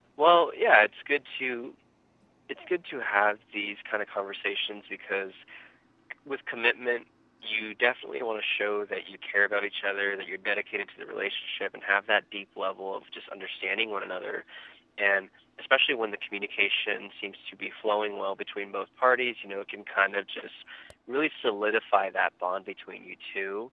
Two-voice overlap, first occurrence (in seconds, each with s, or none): none